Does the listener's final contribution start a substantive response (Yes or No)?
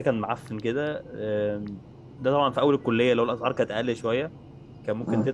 No